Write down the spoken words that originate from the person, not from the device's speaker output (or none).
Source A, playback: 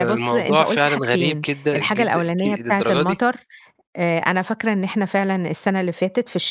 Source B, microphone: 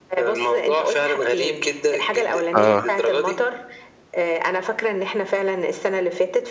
آه.